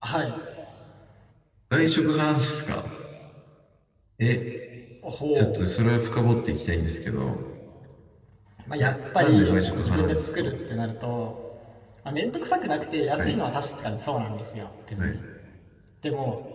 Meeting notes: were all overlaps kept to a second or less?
No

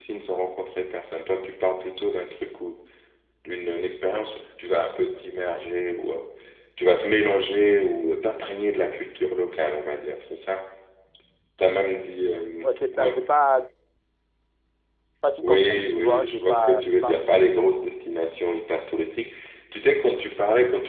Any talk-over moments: Yes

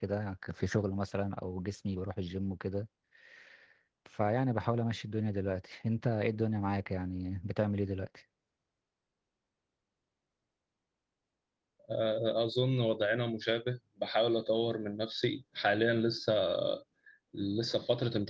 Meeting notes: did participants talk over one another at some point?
No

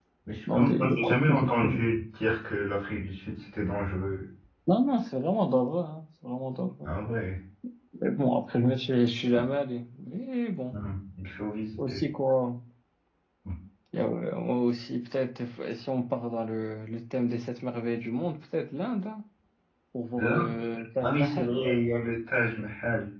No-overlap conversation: No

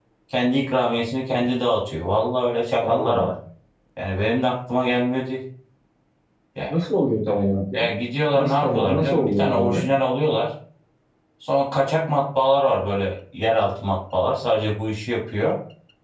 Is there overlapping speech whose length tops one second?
Yes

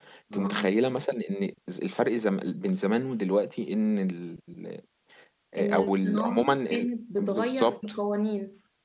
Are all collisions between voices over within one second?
No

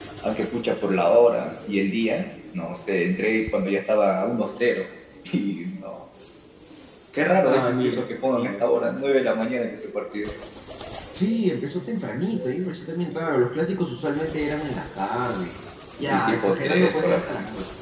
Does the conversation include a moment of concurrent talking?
Yes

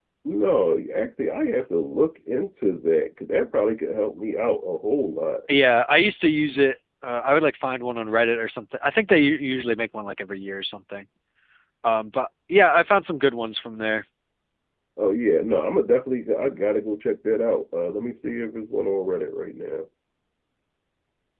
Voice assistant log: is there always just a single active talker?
Yes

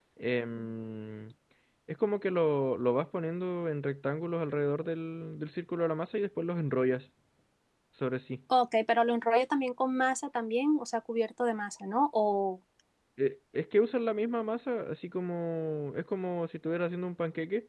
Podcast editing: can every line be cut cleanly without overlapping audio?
Yes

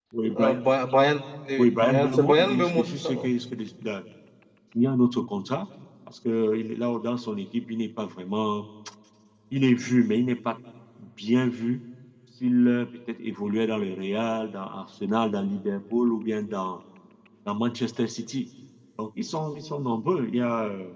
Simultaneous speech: Yes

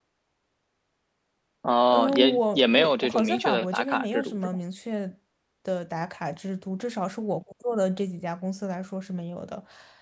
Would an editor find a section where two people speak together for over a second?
Yes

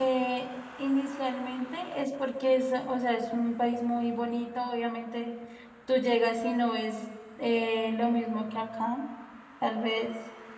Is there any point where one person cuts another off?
No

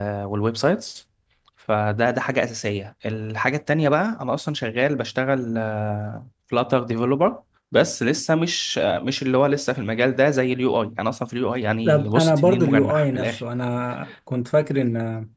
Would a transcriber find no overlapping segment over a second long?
No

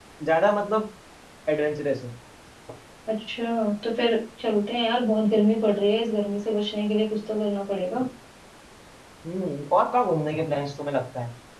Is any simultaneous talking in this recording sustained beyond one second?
No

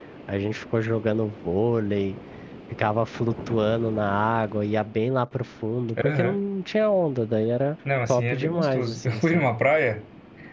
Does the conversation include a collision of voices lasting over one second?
Yes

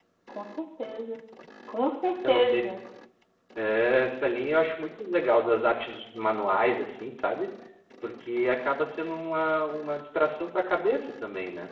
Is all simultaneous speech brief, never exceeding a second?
Yes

